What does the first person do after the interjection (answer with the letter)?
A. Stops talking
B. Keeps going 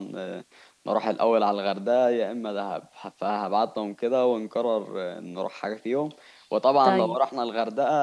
B